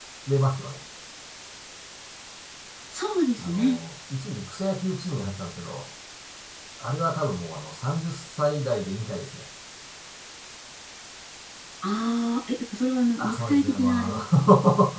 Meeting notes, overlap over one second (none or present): present